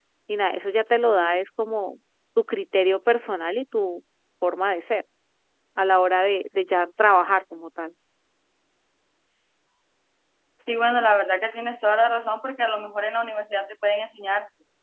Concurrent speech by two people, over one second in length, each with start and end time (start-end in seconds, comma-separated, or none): none